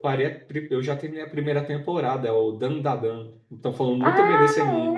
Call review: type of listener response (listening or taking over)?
taking over